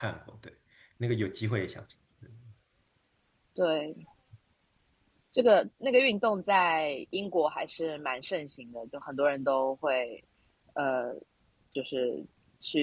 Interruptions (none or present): none